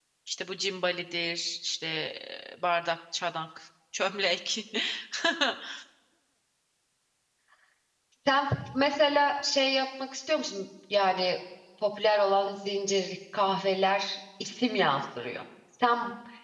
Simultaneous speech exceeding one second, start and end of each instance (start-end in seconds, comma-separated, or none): none